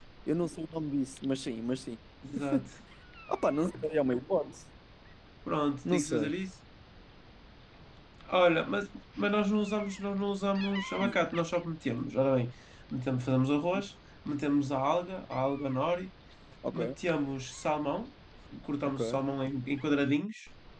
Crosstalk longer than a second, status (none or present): none